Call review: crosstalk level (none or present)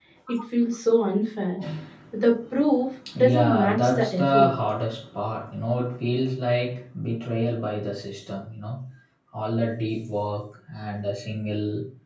present